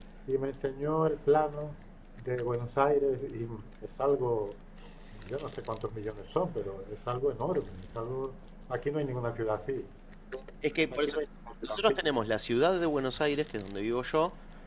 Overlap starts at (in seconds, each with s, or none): none